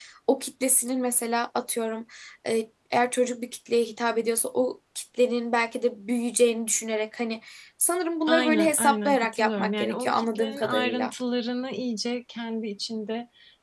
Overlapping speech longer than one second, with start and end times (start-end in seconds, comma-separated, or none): 8.3-11.1